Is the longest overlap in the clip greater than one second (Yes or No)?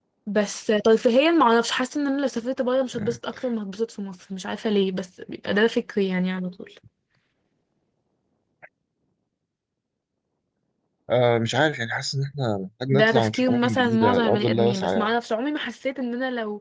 Yes